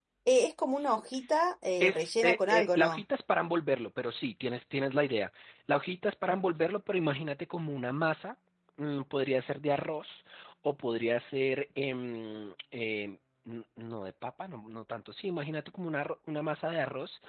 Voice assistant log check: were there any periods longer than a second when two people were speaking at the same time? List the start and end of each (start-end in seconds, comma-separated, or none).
1.8-3.0